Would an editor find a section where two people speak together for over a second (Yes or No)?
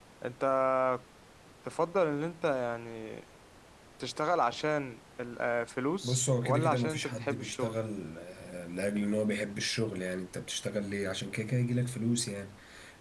Yes